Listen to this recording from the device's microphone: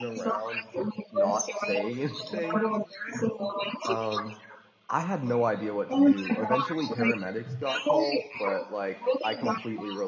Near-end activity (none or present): present